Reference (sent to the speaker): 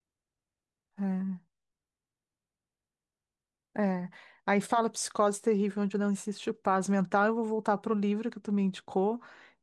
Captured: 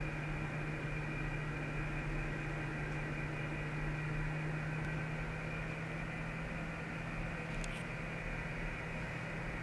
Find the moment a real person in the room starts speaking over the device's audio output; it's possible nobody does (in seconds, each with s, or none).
none